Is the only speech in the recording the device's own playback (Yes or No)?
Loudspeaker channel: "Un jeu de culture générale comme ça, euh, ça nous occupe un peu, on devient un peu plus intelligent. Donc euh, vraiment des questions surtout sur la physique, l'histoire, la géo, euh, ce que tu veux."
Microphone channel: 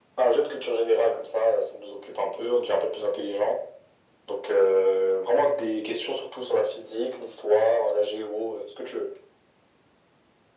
Yes